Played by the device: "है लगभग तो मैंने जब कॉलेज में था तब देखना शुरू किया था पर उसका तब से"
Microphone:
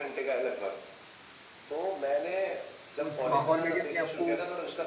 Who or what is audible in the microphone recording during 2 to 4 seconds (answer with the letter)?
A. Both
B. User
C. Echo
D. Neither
A